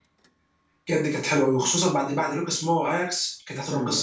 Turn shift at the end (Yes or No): Yes